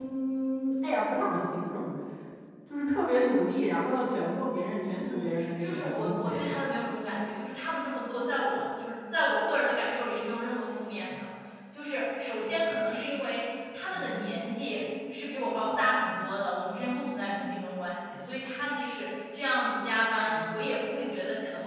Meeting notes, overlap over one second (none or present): present